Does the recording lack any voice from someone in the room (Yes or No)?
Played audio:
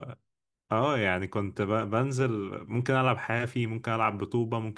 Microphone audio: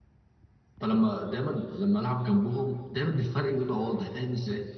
No